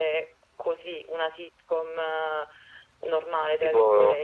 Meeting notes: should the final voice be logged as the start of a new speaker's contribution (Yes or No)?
Yes